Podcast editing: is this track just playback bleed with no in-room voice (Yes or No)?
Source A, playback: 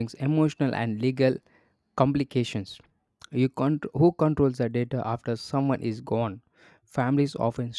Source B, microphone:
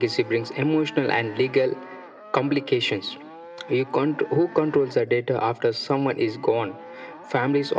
Yes